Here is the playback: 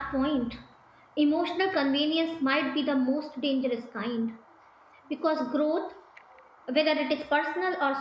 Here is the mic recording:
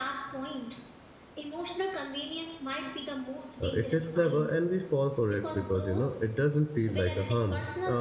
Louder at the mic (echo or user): user